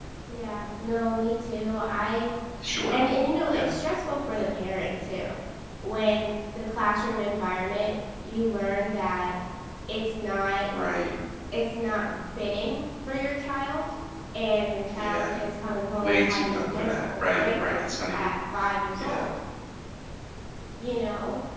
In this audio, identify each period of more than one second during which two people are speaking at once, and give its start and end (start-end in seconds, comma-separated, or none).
15.9-18.3